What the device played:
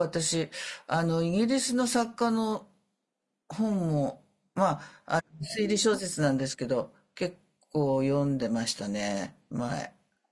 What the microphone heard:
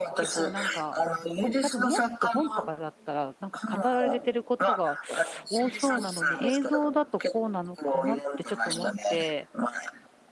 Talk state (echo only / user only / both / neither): both